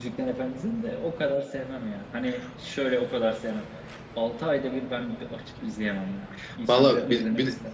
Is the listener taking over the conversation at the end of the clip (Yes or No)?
Yes